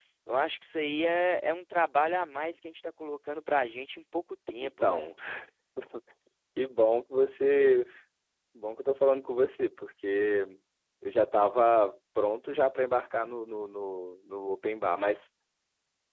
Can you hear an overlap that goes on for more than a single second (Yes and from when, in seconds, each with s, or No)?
No